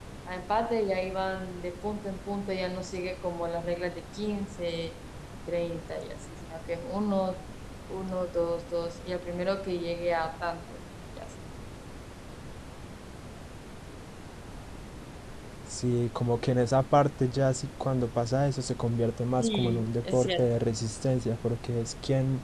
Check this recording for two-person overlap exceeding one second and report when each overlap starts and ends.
19.4-20.6

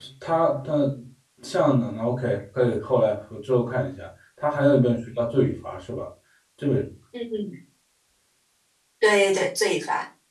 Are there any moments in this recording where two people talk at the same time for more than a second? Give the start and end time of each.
none

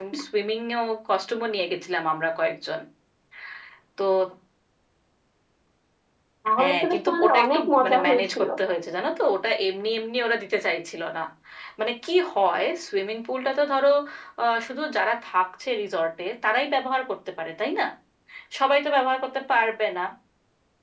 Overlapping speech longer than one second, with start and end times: 6.6-8.5

